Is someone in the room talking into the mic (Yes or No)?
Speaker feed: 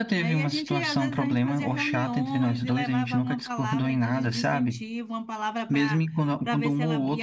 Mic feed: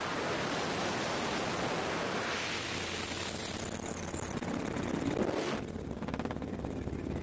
No